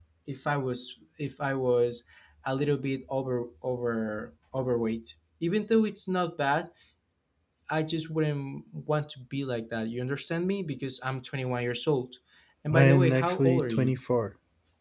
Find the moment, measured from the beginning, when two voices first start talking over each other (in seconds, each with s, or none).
12.7 s